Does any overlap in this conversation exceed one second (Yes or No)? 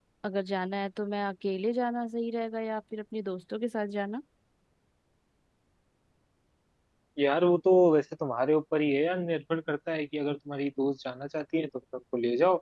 No